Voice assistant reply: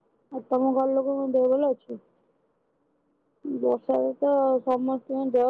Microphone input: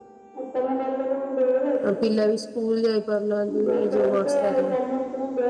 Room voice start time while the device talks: 2 s

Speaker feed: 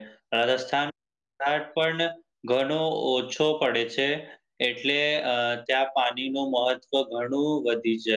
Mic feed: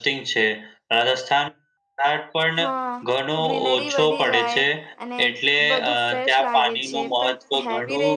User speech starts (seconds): 3 s

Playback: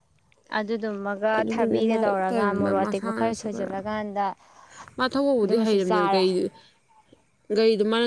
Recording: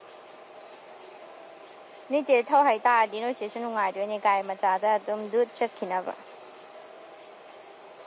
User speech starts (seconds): 2 s

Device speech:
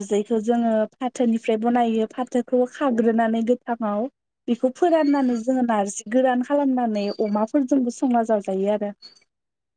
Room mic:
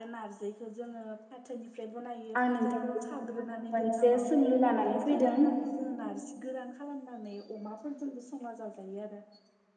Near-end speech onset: 2 s

